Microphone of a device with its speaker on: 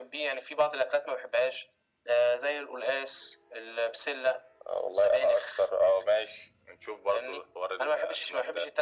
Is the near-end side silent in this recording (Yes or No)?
Yes